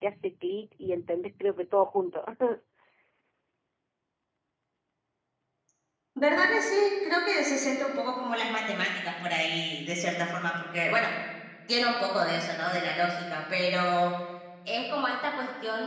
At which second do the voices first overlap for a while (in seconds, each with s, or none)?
none